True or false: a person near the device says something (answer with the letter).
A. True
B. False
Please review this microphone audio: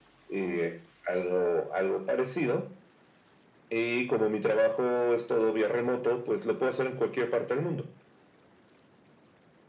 B